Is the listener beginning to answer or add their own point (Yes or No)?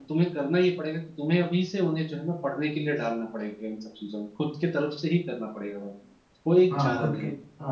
Yes